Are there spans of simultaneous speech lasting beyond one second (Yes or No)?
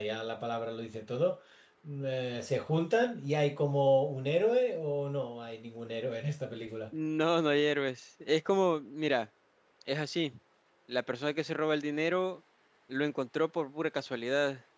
No